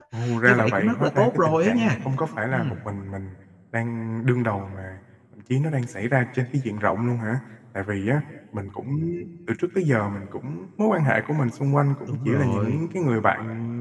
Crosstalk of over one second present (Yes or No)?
Yes